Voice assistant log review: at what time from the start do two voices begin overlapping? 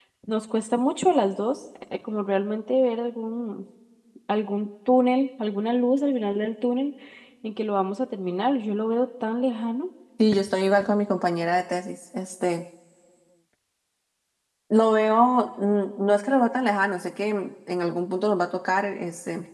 none

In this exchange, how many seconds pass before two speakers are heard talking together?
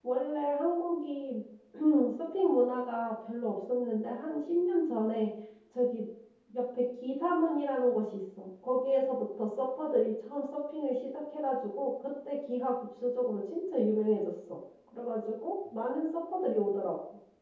none

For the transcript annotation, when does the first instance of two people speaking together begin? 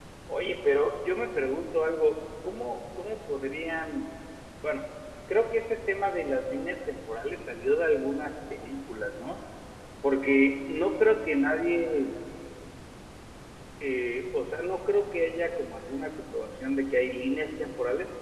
none

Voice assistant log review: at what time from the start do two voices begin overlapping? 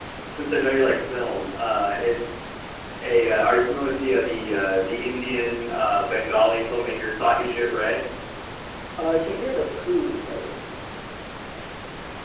none

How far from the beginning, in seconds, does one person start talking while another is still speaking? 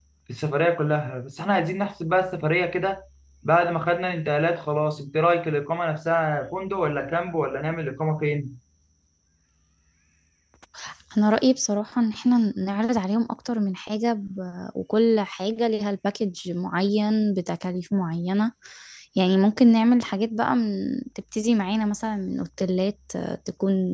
none

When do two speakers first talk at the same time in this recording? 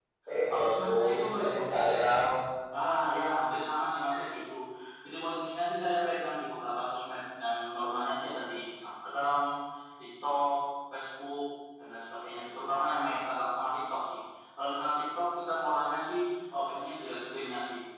0.5 s

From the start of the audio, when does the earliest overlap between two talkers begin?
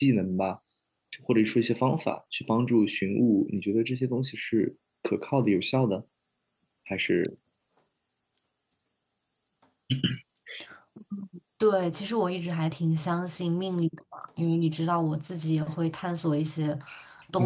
none

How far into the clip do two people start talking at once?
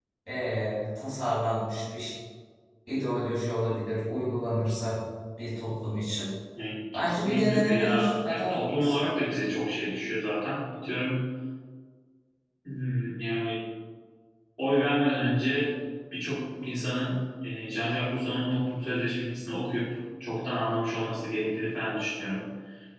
6.9 s

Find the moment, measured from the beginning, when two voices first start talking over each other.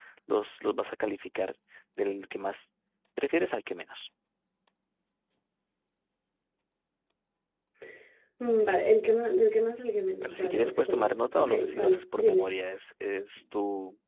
10.2 s

